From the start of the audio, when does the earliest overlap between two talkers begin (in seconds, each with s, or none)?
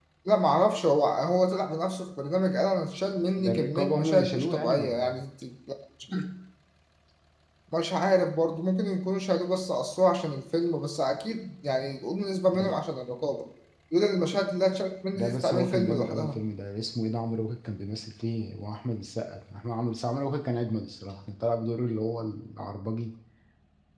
3.4 s